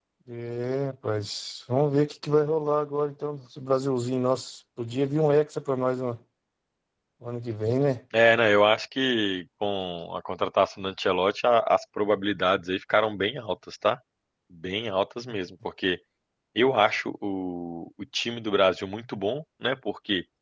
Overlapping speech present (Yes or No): No